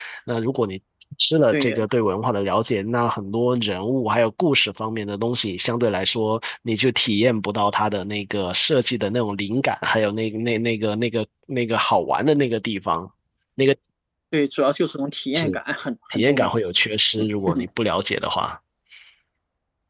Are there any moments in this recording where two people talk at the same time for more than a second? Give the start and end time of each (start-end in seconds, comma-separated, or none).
none